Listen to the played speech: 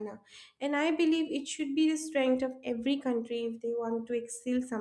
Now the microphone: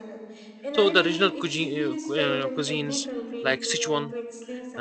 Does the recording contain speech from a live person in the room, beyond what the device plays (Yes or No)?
Yes